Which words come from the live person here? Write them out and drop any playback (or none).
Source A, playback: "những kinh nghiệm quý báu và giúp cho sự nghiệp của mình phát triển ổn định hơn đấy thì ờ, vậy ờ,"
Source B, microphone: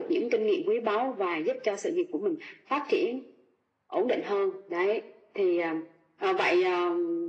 none